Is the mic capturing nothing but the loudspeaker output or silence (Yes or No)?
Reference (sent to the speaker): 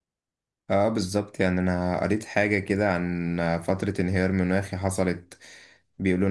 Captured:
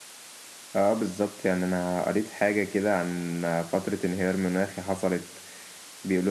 Yes